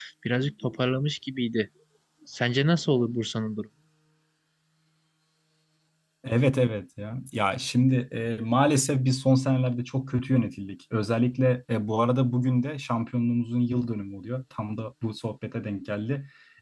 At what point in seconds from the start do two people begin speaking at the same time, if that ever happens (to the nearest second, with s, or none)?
none